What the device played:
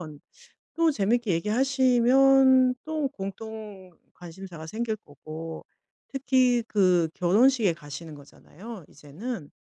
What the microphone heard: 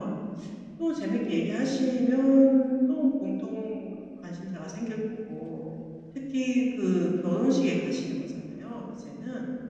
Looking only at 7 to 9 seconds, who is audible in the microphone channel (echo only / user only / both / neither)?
echo only